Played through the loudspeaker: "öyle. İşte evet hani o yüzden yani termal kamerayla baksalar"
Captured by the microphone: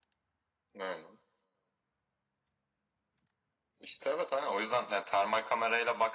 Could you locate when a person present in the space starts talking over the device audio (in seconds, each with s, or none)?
none